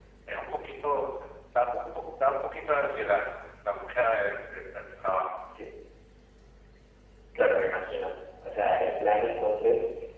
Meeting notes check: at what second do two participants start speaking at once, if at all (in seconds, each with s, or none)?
none